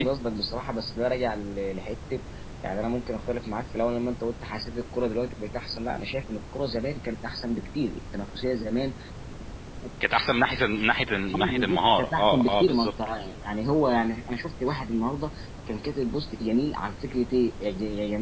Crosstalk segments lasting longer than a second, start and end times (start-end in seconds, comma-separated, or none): 11.3-12.9